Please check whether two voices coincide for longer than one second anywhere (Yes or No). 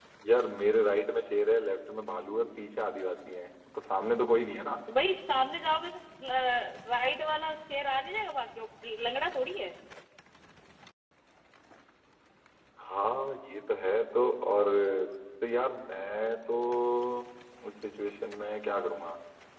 No